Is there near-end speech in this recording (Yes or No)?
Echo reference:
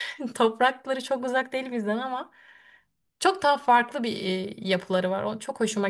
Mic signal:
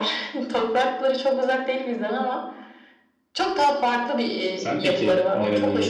Yes